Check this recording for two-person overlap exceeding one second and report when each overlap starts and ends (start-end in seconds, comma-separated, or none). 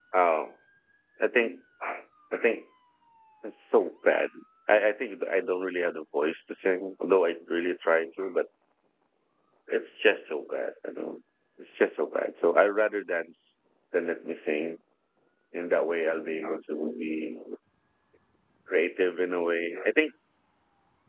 none